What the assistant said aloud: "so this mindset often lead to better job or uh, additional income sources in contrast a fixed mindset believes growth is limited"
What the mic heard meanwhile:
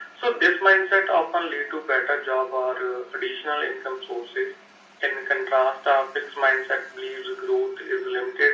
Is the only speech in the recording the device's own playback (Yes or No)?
Yes